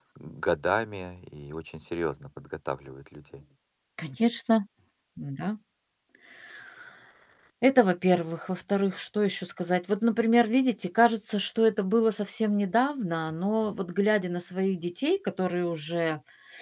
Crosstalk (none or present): none